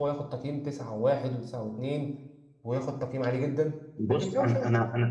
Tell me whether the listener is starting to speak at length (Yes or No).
Yes